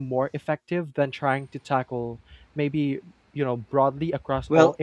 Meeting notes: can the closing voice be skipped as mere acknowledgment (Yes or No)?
No